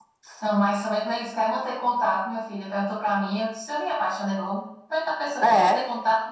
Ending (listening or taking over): listening